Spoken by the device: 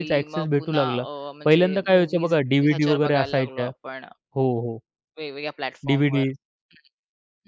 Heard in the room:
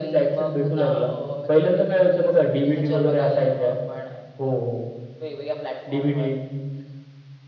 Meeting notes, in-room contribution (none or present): none